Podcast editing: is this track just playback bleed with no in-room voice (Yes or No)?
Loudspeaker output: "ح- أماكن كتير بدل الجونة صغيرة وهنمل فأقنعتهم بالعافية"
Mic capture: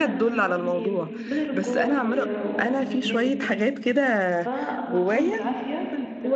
No